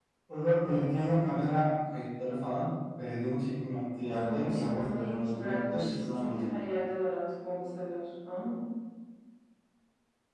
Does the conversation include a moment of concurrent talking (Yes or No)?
Yes